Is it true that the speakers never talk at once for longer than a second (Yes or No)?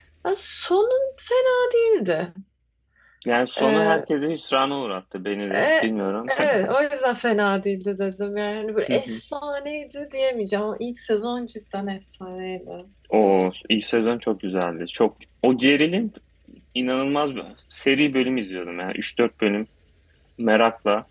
Yes